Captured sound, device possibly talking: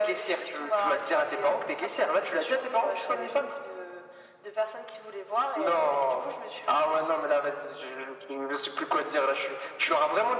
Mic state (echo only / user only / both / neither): echo only